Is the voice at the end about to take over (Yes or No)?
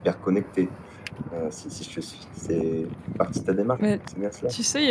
Yes